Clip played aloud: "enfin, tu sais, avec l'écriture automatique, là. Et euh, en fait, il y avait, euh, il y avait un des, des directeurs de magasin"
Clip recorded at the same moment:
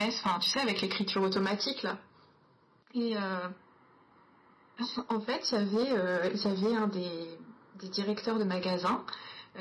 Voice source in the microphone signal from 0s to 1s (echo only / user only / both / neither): echo only